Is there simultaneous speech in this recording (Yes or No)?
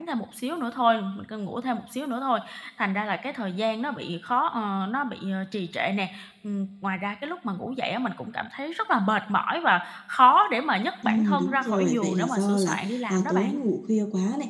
Yes